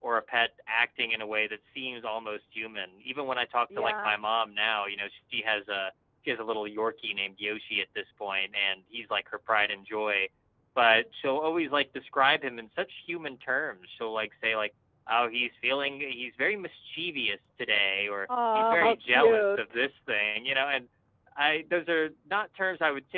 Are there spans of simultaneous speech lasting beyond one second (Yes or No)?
Yes